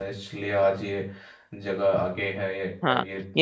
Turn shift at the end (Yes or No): Yes